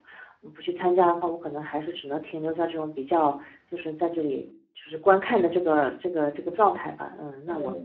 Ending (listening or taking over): listening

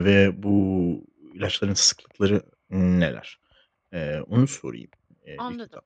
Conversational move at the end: taking over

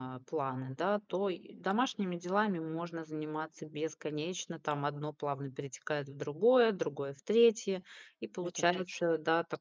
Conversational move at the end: listening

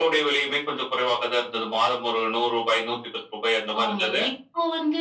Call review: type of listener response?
taking over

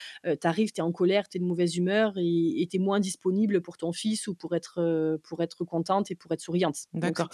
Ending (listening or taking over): taking over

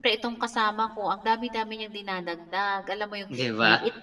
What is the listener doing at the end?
listening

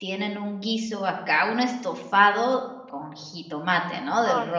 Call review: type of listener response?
listening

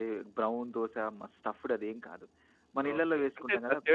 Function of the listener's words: taking over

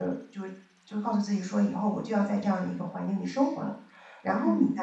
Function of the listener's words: listening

